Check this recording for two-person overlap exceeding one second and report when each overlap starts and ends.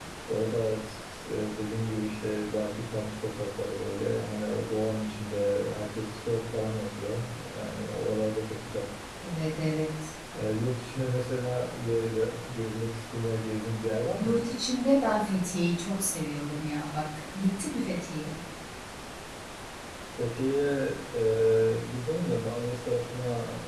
none

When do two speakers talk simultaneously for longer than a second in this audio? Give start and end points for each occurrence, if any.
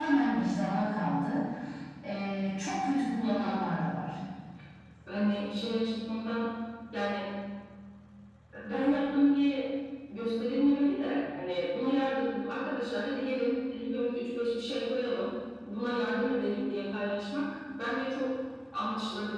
none

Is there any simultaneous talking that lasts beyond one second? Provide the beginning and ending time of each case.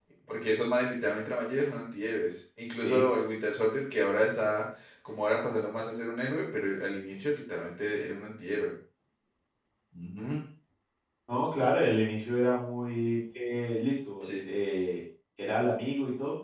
none

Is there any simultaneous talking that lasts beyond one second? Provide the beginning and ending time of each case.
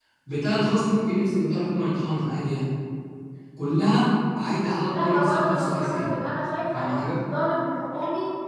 4.9-6.1

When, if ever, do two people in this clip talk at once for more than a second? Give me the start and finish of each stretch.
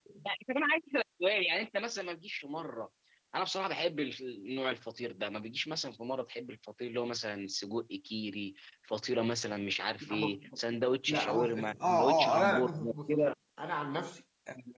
11.1-13.2

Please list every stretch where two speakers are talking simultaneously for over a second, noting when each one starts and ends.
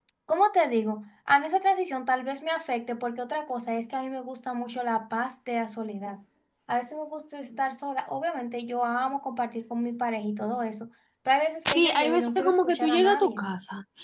11.7-13.4

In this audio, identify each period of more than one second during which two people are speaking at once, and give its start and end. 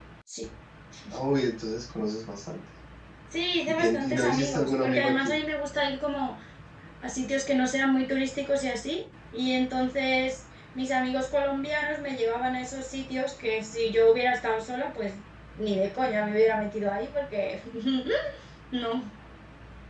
3.7-5.3

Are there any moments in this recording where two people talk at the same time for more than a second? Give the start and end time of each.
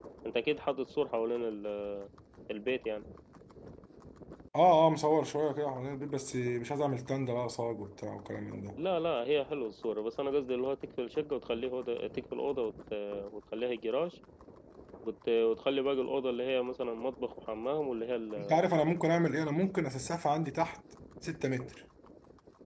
none

